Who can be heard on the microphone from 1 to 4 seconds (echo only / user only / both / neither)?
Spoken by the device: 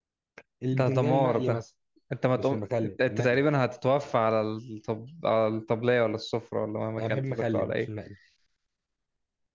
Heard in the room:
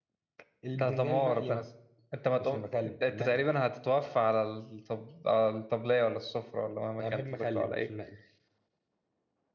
echo only